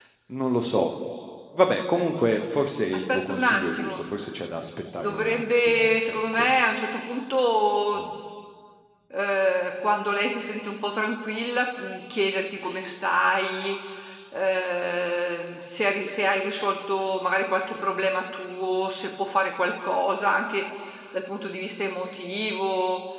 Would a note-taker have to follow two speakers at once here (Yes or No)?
Yes